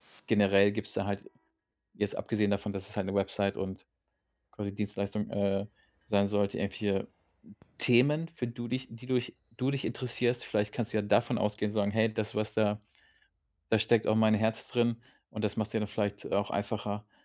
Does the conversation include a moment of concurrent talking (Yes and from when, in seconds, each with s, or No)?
No